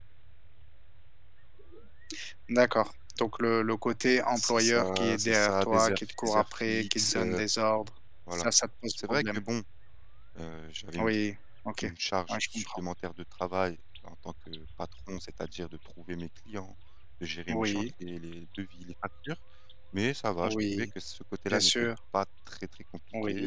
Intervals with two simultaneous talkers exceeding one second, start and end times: 4.3-7.4

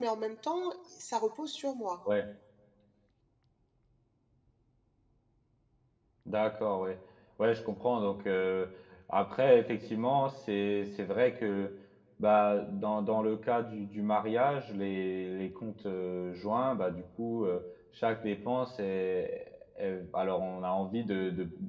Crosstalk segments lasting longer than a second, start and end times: none

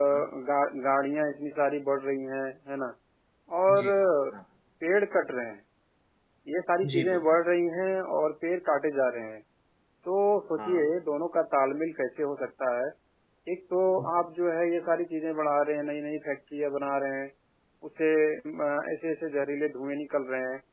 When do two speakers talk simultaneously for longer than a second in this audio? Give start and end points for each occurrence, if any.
none

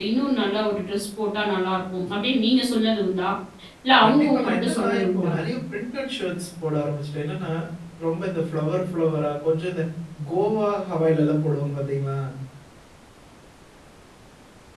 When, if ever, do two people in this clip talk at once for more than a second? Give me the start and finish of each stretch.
4.0-5.3

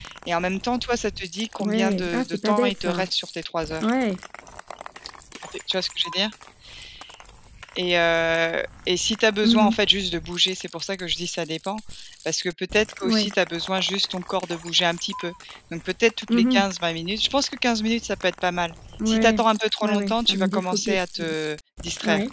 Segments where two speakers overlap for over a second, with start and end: 1.6-3.0, 19.8-21.3

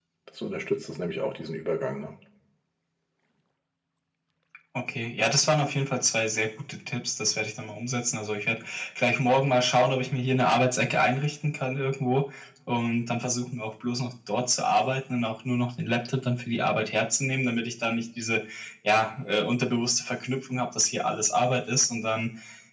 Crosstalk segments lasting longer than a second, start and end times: none

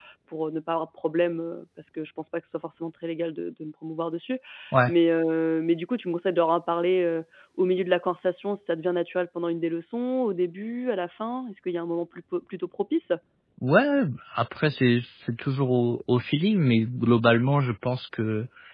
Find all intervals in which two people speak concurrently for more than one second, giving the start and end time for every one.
none

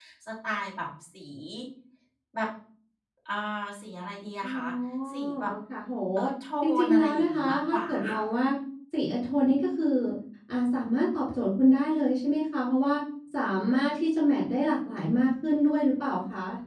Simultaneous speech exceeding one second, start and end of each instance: 6.6-8.2

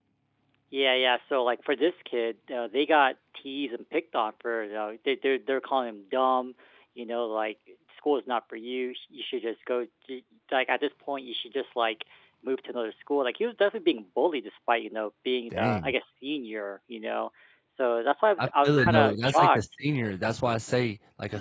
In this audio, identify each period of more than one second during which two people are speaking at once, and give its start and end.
18.4-19.6

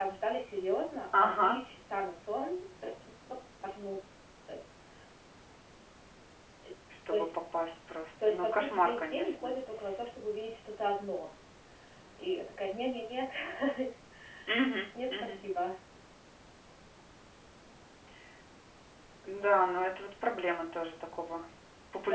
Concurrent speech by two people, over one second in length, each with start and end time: 8.2-9.5

